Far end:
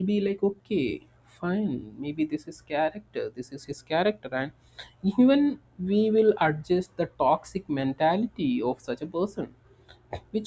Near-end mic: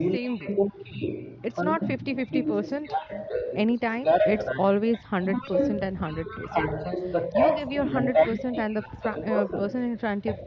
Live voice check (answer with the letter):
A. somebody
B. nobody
A